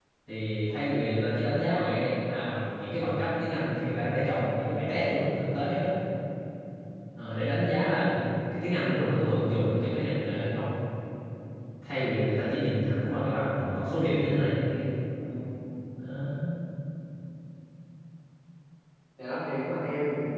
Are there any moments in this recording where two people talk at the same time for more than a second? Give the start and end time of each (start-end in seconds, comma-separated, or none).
none